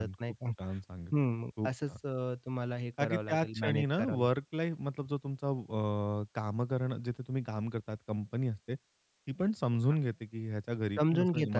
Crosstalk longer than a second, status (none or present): present